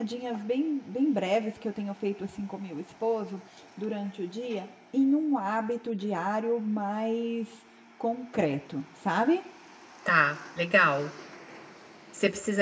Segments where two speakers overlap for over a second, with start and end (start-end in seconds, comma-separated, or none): none